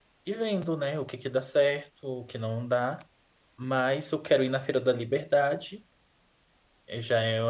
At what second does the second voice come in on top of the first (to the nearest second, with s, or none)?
none